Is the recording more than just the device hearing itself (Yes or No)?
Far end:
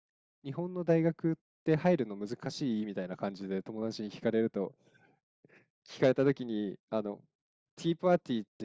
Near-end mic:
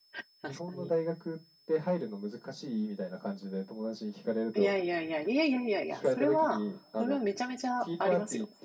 Yes